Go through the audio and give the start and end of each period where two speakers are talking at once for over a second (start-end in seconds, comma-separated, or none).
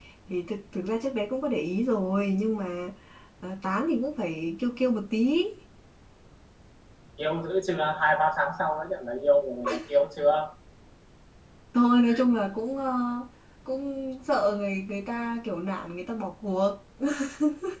none